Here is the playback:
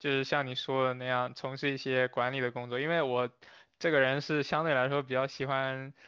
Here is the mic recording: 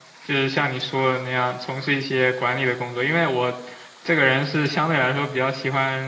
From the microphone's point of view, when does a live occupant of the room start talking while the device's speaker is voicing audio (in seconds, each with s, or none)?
none